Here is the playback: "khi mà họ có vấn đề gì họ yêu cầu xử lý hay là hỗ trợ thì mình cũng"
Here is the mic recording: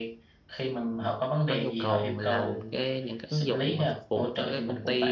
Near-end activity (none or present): present